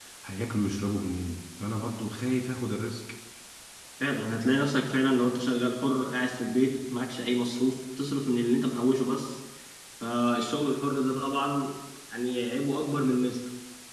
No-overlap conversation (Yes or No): Yes